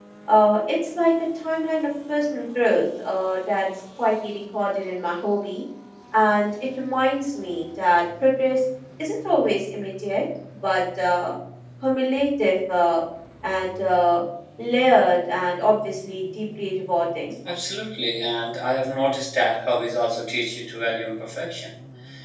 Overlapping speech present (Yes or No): No